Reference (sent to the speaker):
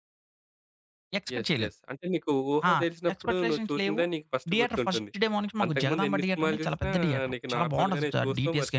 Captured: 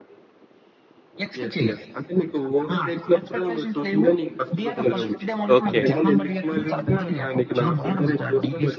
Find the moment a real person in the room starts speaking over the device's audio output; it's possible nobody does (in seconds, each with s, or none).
4.7 s